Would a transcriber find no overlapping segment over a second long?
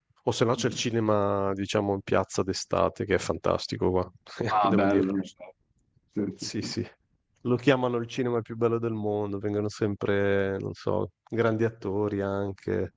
Yes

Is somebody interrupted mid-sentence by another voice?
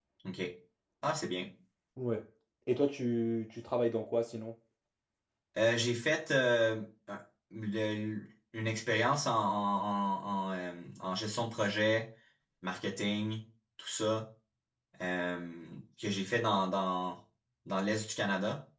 No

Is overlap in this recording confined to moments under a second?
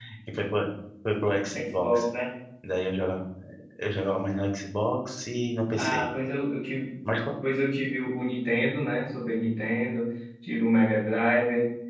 Yes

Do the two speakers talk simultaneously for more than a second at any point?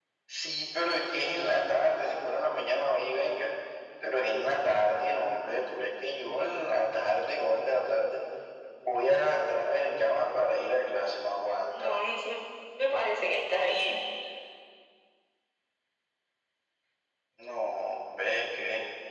No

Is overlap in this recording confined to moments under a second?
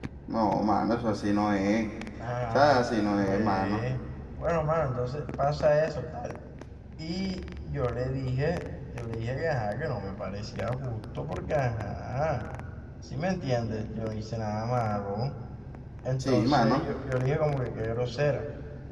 No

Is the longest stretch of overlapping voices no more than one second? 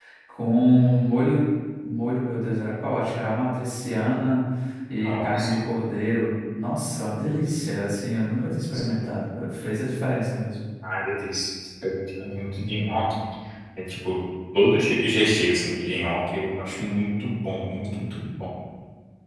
Yes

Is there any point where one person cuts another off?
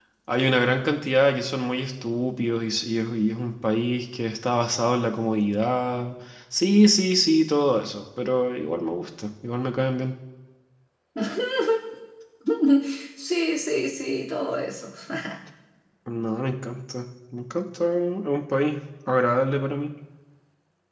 No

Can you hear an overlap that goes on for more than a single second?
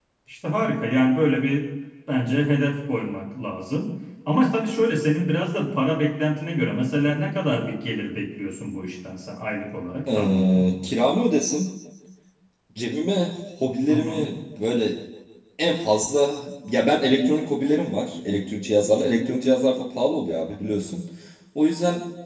No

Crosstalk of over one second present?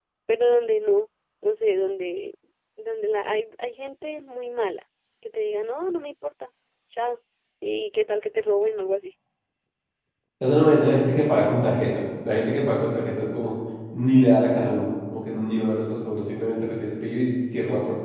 No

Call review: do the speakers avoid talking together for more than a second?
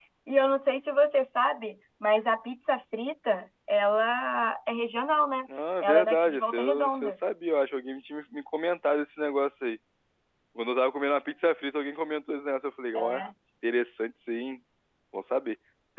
No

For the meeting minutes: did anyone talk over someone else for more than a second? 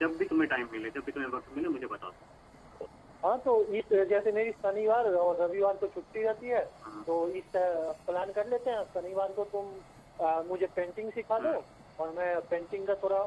No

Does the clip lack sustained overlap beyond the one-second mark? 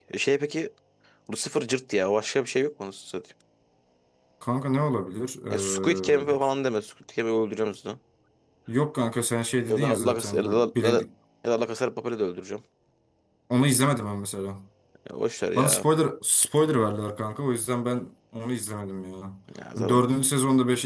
No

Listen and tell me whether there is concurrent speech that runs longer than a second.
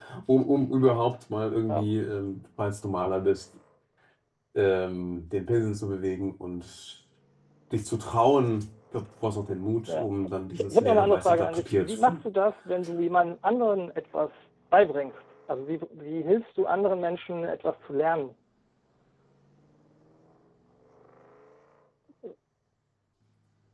Yes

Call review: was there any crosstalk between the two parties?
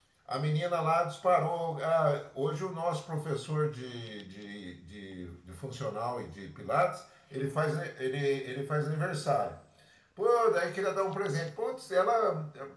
No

